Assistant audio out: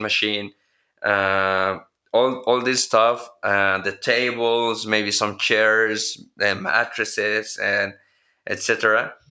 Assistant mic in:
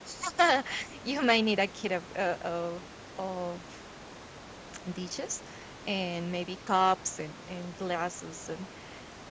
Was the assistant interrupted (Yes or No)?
Yes